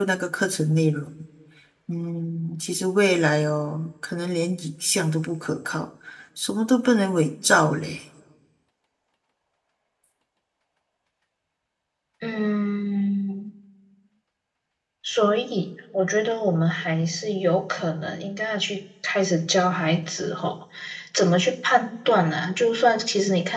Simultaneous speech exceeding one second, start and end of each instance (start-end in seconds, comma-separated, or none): none